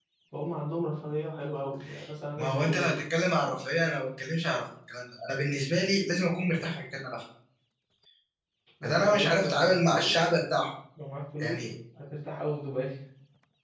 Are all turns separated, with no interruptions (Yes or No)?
No